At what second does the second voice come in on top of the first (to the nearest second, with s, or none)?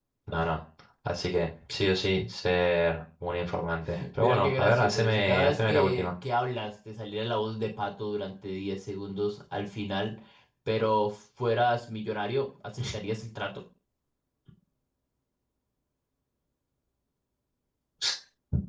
4 s